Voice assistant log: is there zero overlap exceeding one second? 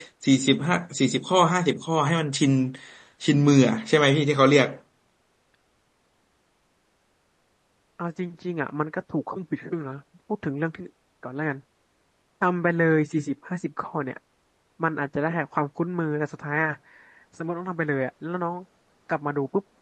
Yes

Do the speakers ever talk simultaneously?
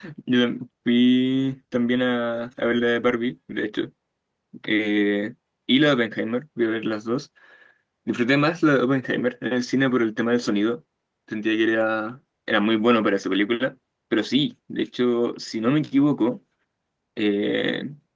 No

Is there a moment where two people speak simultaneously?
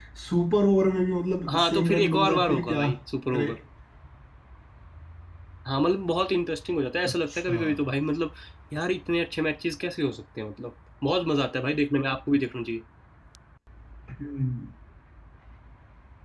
Yes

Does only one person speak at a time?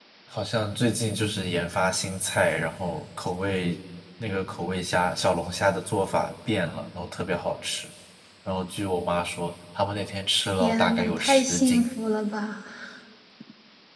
No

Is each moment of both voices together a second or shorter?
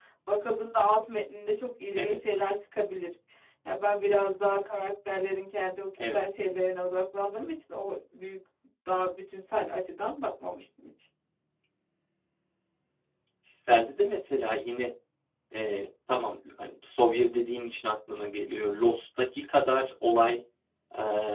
Yes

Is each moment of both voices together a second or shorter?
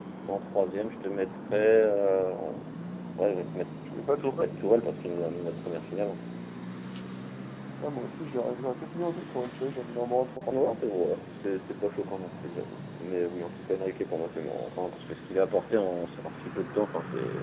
Yes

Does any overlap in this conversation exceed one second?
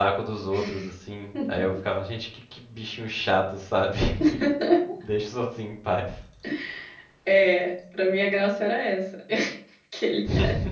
No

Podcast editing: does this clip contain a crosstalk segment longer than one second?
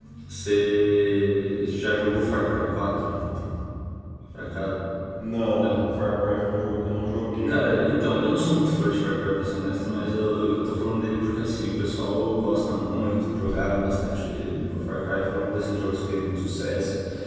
No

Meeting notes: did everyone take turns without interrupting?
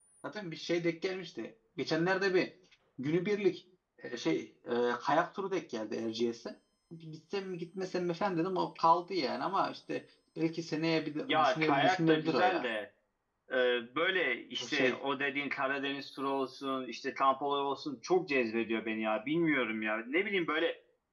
No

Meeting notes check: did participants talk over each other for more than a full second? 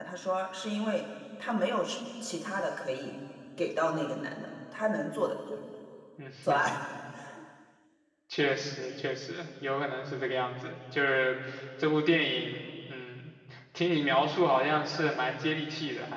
No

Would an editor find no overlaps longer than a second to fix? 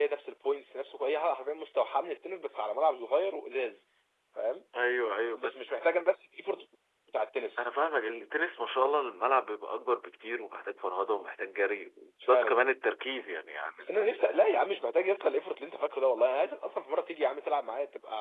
Yes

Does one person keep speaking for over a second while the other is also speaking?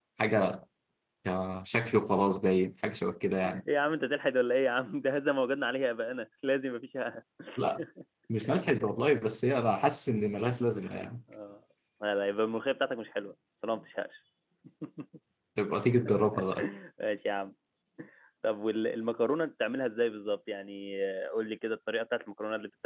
No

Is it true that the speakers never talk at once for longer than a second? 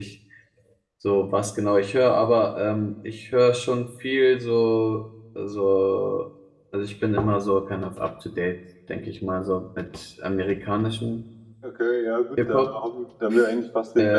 Yes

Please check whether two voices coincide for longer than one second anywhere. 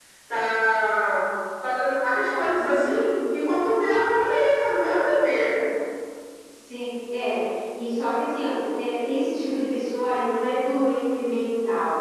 No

